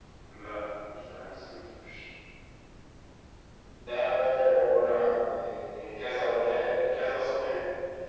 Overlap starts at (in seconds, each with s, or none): none